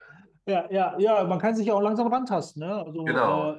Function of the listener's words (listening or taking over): listening